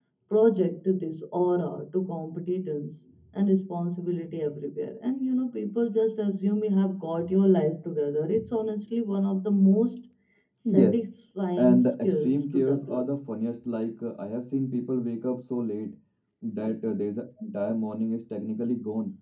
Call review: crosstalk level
present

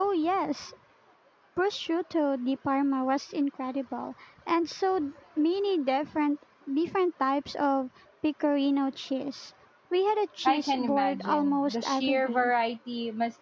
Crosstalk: present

